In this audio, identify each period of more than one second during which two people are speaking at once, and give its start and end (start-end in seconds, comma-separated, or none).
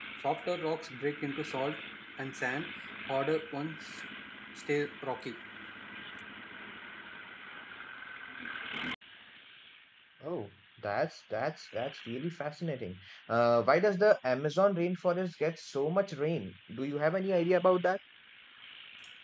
none